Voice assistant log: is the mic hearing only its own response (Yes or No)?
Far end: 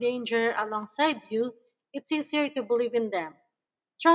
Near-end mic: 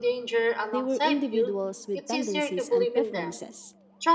No